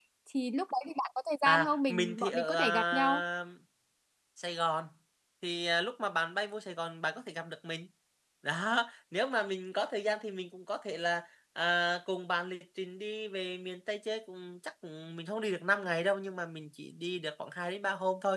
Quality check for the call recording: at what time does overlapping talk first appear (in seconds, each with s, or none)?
1.4 s